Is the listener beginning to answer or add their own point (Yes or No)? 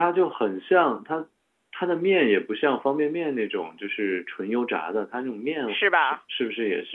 No